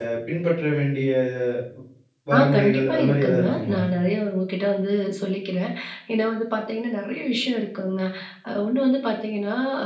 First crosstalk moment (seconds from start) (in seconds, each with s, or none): 2.4 s